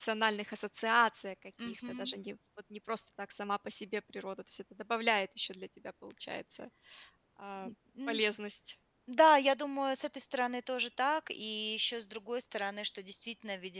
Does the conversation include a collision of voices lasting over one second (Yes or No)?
No